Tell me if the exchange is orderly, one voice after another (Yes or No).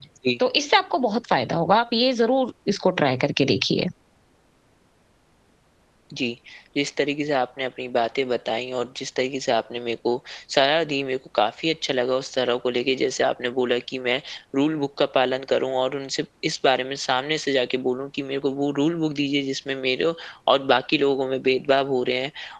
Yes